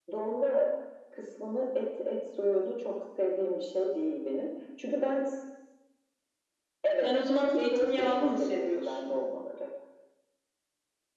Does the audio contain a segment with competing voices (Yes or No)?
Yes